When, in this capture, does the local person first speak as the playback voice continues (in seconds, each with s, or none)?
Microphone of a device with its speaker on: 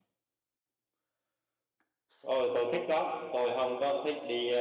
2.2 s